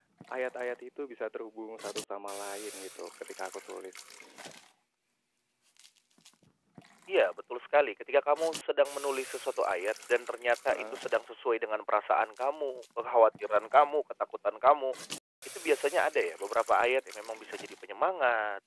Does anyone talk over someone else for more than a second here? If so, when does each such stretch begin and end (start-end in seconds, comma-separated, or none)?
none